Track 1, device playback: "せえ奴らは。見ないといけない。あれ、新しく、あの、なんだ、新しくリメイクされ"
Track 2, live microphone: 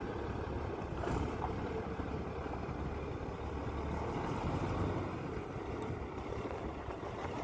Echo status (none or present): none